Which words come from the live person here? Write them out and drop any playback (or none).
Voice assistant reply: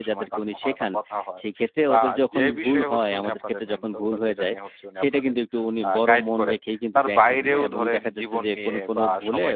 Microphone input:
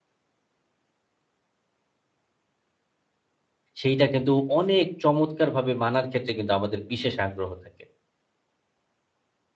সেইটা কিন্তু অনেক চমৎকারভাবে মানার ক্ষেত্রে কিন্তু আমাদের বিশেষ আগ্রহ থাকে।